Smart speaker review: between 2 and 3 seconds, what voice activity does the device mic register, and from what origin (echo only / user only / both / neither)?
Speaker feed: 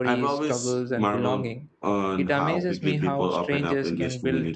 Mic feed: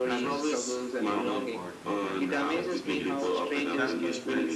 both